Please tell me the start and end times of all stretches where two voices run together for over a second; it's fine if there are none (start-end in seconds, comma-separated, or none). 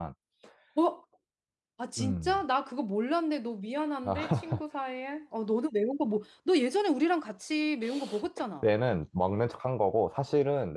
none